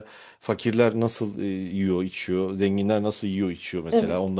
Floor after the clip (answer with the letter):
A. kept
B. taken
A